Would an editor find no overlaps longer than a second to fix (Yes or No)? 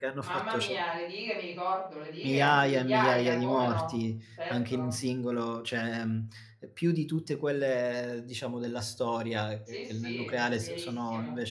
No